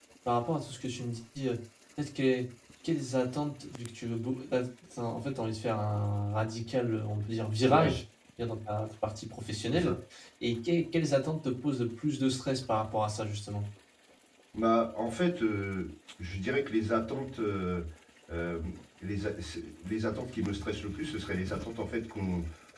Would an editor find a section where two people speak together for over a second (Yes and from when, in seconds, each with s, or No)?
No